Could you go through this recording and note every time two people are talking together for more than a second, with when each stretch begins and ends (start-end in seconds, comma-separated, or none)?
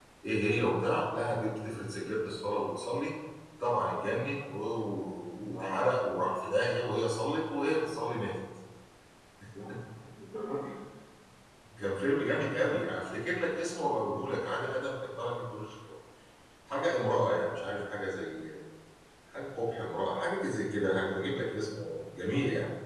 none